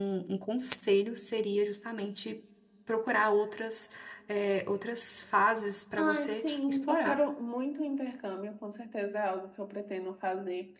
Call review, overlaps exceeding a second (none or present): present